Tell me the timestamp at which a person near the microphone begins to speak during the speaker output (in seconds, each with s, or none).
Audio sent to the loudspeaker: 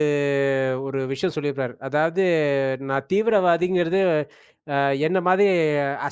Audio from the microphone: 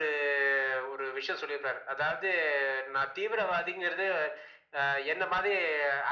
none